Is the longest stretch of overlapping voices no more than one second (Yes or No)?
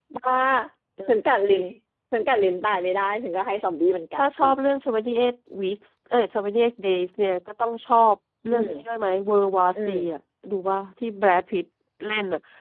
Yes